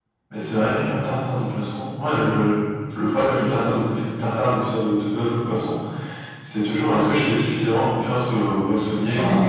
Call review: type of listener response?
listening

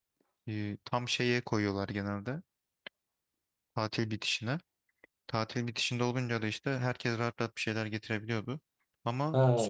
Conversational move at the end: taking over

